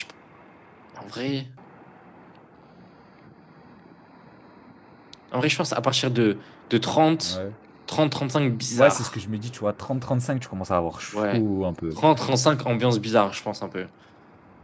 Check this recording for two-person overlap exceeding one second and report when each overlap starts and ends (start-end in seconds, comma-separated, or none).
none